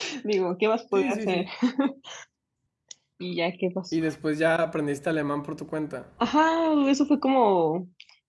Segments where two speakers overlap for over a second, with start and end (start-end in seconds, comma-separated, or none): none